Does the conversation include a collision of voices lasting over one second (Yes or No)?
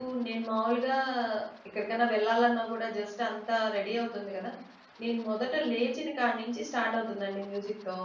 No